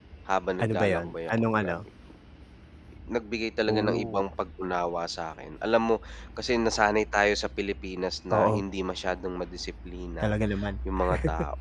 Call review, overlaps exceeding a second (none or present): present